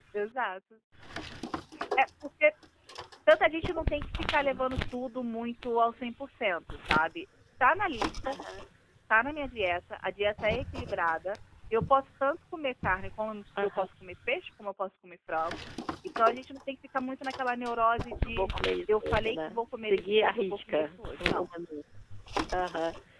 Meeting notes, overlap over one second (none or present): present